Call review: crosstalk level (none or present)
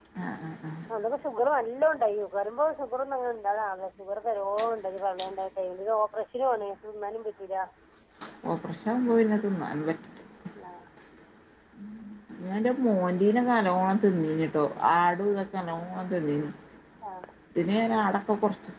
none